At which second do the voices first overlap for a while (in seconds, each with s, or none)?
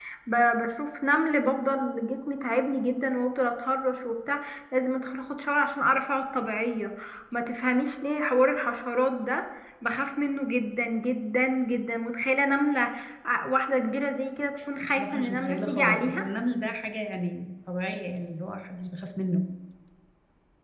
14.8 s